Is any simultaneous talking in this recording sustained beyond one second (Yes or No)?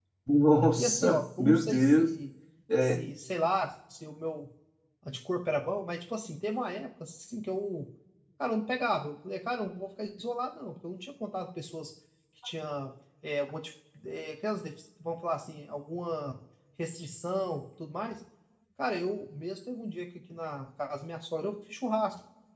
Yes